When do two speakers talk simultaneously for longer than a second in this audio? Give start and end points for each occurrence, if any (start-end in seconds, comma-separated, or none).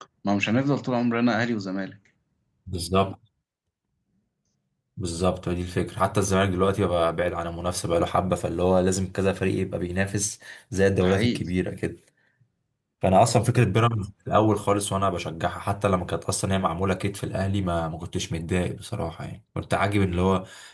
none